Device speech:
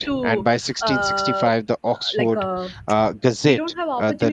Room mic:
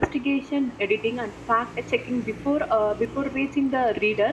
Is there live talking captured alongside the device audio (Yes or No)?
Yes